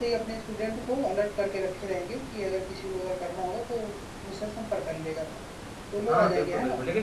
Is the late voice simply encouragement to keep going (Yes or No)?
No